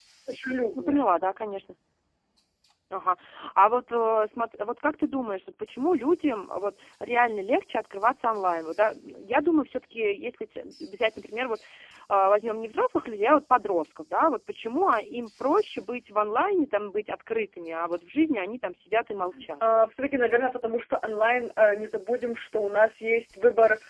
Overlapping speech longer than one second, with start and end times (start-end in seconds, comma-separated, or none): none